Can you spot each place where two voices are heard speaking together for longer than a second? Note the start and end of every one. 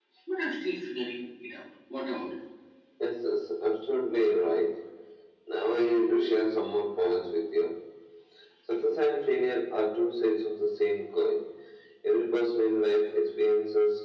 none

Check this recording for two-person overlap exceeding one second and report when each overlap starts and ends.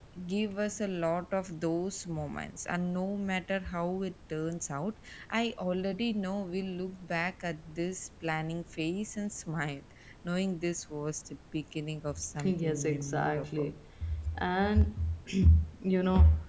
12.4-13.7

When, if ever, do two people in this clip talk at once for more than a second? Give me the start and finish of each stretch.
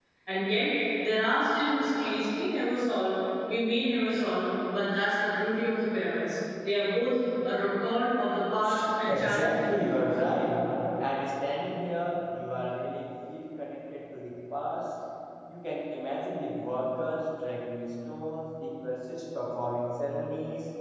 9.0-10.3

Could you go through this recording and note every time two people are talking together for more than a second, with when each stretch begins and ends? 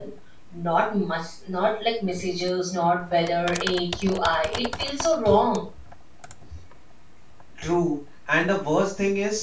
none

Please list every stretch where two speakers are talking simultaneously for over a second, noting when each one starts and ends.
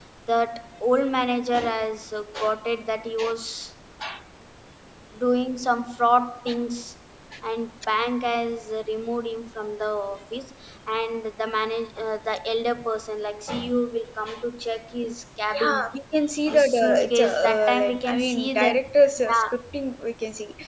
16.5-18.8

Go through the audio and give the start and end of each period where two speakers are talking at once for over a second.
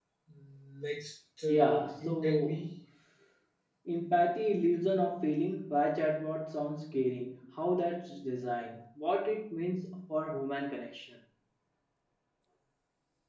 1.5-2.7

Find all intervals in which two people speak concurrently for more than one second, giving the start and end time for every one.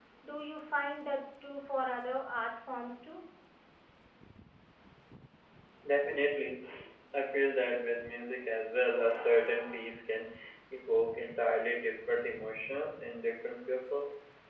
none

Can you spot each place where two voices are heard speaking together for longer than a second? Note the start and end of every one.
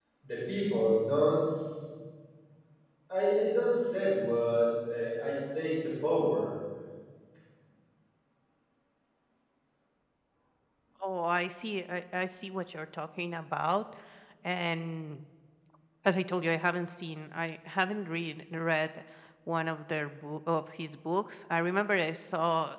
none

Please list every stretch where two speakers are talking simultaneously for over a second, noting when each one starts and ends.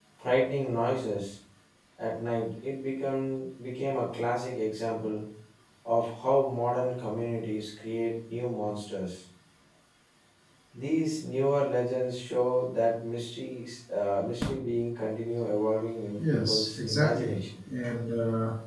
16.2-17.4

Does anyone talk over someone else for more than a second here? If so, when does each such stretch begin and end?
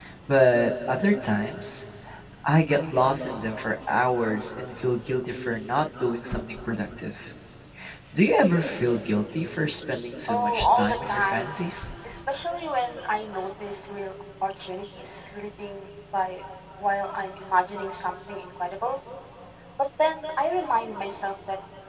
10.3-11.5

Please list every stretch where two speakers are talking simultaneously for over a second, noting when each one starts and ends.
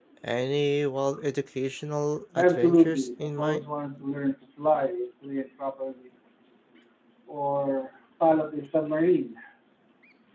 2.4-3.6

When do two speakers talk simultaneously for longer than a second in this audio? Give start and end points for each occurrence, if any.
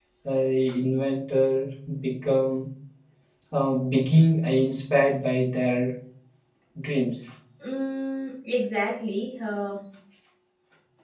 none

